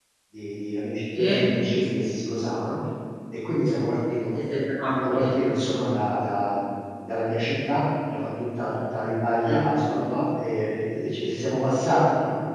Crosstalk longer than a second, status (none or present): none